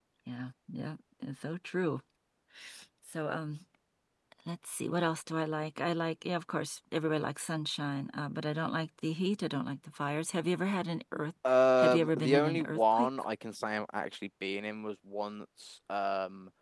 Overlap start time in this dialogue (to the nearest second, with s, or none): 12 s